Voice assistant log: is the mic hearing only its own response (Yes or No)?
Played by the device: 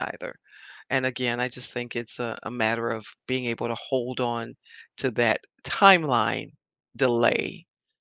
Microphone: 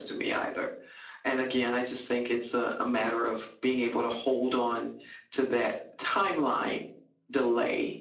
Yes